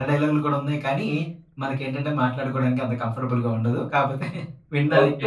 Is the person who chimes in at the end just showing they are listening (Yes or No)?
No